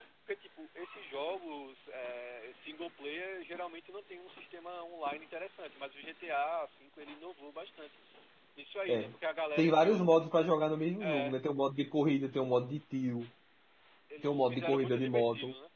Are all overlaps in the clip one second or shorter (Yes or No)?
No